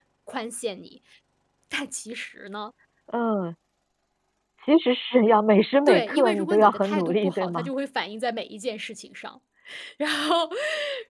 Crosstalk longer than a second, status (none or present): present